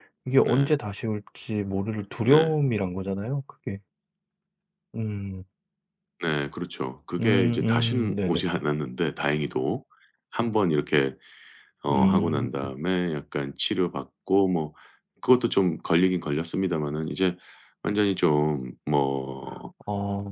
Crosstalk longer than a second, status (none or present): present